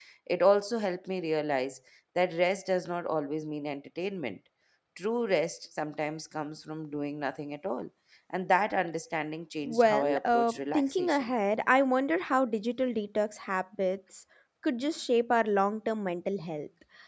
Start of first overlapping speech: 9.7 s

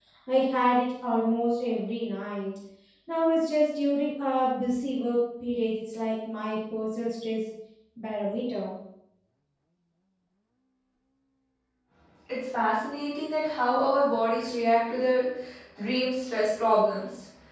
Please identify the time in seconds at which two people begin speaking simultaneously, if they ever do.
none

